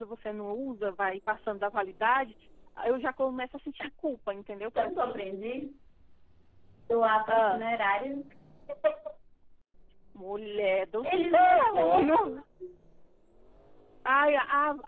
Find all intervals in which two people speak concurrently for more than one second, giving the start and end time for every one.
11.0-12.4

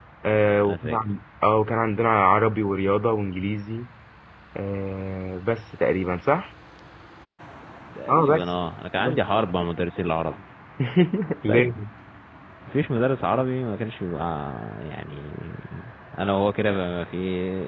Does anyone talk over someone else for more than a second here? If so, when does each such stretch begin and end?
none

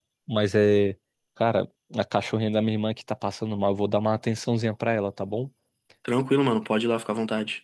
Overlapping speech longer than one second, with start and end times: none

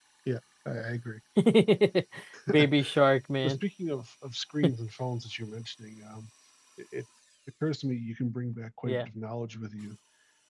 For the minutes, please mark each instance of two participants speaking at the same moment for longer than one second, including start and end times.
none

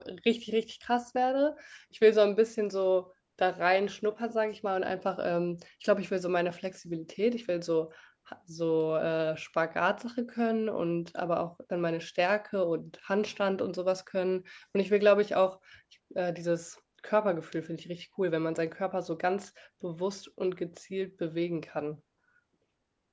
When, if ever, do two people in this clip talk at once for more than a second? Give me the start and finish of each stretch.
none

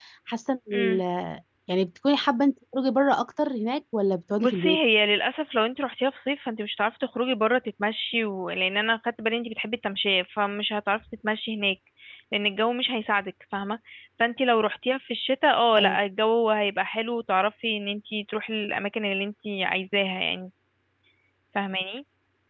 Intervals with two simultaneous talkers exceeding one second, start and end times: none

